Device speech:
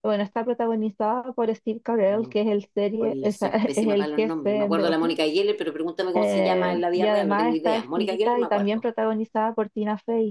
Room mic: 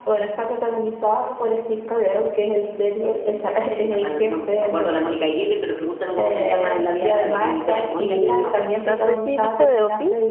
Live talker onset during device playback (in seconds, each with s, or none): 8.0 s